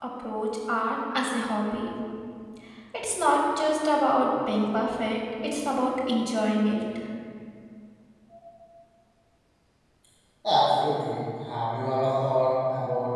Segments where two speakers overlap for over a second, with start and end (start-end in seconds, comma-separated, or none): none